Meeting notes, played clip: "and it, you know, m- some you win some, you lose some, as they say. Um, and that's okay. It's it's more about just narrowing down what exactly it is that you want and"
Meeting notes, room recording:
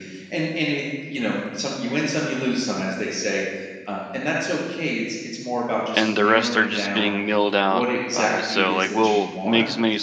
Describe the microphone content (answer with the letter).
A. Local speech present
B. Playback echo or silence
A